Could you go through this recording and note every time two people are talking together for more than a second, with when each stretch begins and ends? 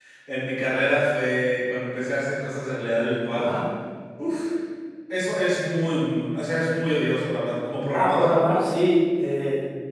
none

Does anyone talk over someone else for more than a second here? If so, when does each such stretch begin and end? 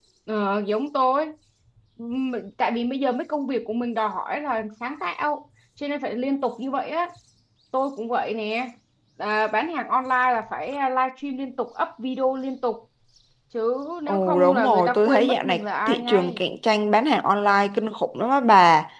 14.1-16.4

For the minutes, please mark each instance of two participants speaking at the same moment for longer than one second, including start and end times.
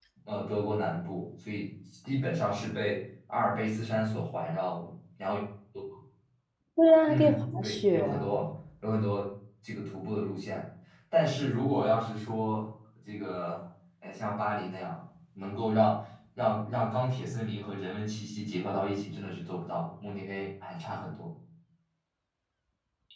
7.1-8.4

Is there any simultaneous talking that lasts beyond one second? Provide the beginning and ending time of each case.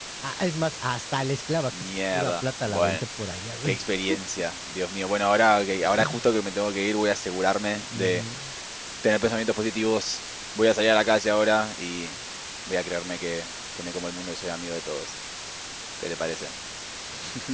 1.8-3.0

